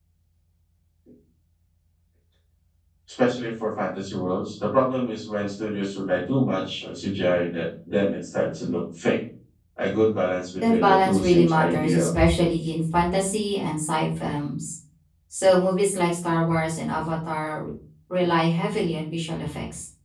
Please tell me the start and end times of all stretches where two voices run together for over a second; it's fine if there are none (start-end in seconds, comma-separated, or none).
10.6-12.2